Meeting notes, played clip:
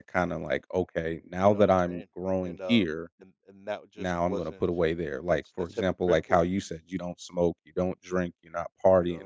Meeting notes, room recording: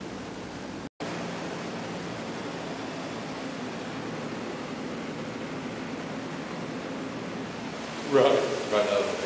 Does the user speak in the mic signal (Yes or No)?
Yes